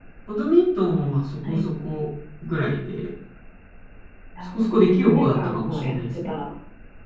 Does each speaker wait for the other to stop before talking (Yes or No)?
No